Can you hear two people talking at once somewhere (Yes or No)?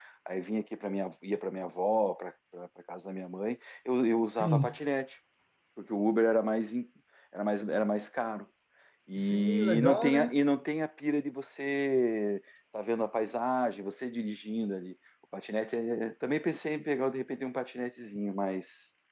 Yes